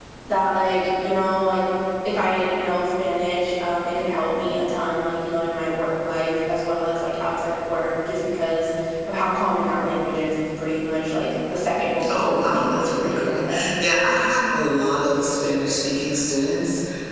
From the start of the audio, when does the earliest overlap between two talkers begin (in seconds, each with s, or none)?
12.1 s